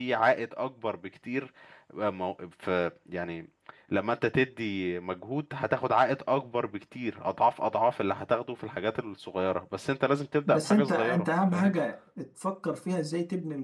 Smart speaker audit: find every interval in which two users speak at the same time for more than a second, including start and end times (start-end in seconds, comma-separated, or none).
10.5-11.8